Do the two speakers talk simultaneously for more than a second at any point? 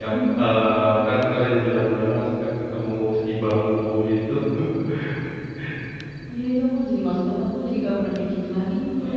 No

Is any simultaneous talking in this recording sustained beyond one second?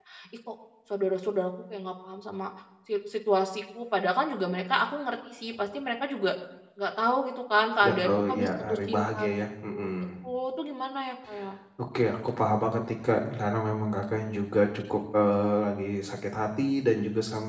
Yes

